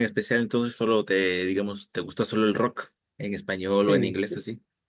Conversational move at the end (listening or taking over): taking over